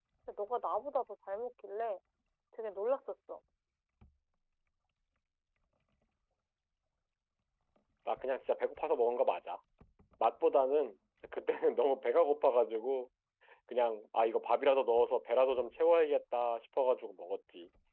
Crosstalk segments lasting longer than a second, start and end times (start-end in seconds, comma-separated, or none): none